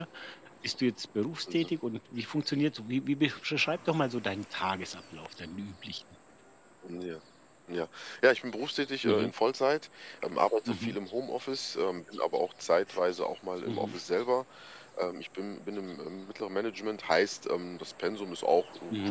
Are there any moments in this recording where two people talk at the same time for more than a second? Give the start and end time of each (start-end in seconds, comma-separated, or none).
none